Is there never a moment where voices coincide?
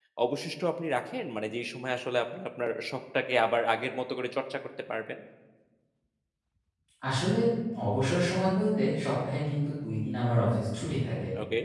Yes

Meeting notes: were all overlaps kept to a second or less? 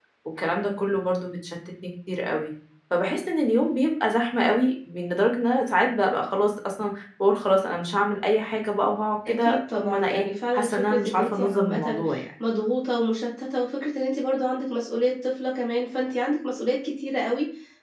No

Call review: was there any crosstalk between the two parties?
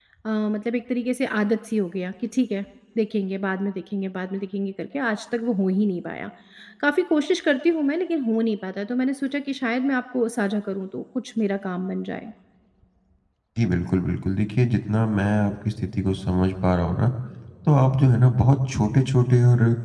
No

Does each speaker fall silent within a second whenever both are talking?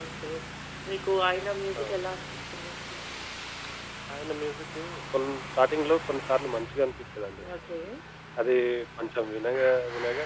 Yes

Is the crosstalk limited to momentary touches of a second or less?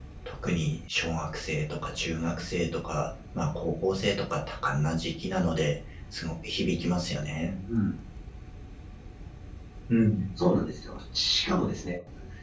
Yes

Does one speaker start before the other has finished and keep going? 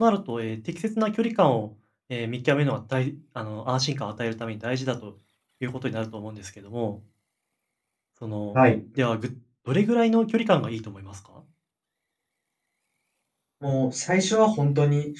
No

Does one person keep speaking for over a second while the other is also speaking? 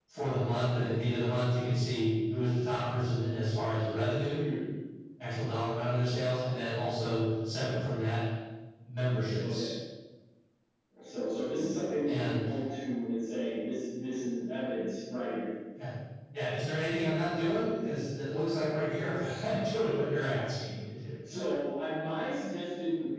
No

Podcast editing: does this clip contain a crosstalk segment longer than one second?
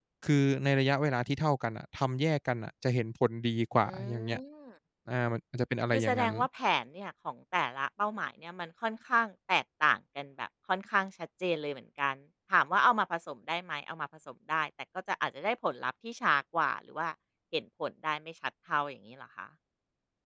No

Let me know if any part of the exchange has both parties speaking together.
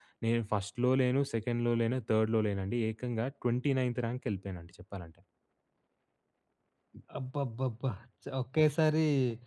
No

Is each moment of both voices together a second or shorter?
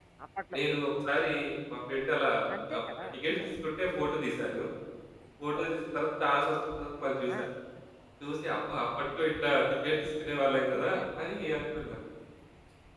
Yes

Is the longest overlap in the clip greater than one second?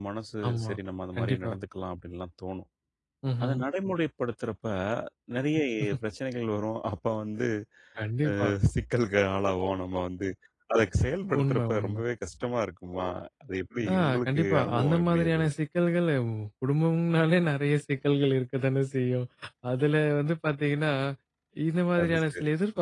Yes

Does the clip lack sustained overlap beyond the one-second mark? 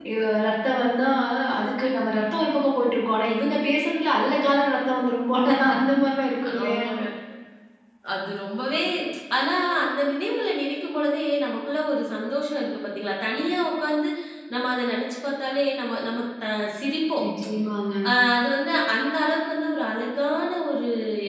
Yes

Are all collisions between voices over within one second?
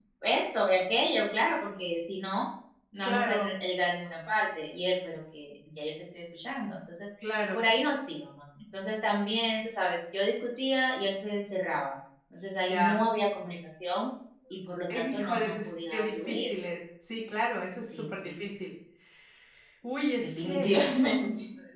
No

